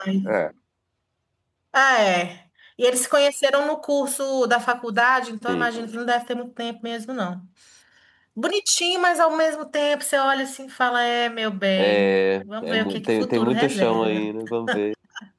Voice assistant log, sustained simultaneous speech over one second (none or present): present